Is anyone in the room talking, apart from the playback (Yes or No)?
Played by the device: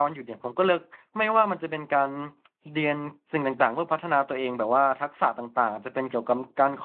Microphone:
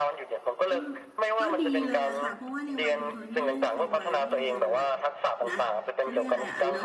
Yes